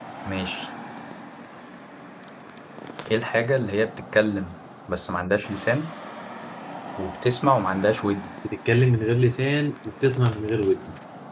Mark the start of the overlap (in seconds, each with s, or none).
none